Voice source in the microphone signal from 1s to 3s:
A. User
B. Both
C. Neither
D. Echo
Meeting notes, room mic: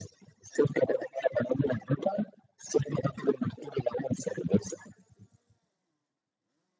D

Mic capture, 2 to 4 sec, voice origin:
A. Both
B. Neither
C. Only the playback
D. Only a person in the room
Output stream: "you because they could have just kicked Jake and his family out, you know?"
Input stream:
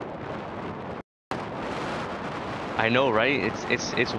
D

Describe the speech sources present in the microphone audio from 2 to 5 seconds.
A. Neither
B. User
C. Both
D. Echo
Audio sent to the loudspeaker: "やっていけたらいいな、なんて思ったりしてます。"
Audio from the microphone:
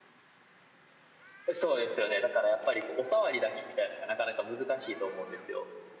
B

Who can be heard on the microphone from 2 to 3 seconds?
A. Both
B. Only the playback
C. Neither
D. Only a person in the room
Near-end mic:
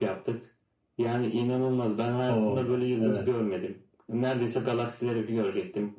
A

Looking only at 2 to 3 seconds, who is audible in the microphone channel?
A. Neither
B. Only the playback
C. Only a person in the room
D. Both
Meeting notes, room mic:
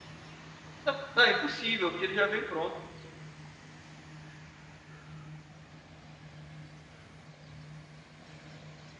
C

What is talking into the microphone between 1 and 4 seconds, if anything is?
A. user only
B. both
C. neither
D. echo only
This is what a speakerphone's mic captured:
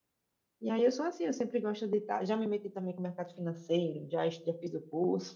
A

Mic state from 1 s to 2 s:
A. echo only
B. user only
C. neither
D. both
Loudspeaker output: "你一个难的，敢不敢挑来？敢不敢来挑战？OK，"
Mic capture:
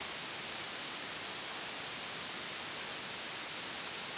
C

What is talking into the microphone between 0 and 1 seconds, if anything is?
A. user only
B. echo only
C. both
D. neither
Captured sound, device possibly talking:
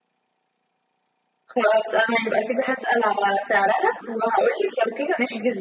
D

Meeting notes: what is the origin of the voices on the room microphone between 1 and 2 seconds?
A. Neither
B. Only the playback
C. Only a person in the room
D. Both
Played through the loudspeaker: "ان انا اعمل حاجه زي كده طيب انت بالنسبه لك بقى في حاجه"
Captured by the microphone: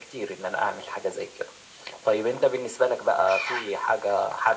B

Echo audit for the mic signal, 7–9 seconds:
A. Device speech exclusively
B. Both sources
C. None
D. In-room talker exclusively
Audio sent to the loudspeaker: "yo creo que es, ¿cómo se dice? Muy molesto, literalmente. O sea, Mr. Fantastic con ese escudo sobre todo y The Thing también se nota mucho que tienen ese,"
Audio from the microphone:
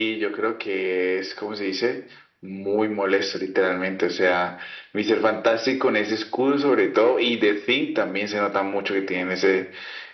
A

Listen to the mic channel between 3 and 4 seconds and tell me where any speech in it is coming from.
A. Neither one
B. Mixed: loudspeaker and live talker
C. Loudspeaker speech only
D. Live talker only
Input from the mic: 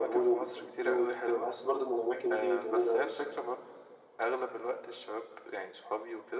C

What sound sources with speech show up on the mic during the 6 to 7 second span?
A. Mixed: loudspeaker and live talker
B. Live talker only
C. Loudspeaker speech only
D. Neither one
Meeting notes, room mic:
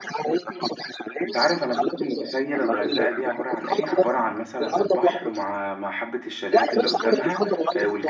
A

